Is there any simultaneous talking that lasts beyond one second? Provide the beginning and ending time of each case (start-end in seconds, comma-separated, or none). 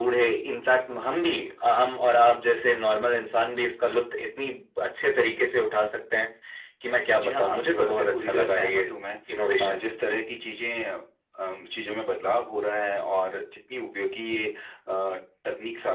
7.1-8.9